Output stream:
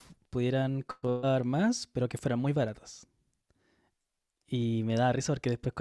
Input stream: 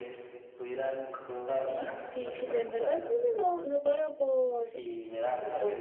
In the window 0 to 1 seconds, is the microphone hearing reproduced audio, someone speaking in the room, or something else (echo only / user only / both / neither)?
echo only